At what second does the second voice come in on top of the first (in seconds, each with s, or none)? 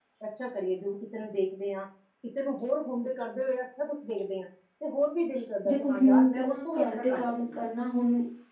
5.6 s